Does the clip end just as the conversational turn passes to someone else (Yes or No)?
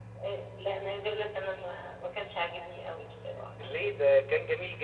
Yes